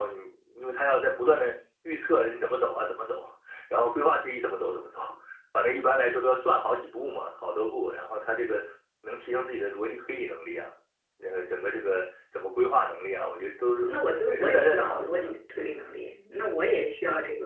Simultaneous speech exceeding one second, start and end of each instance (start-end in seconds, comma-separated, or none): 14.3-15.8